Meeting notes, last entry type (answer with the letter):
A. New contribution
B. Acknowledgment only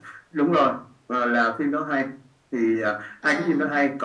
B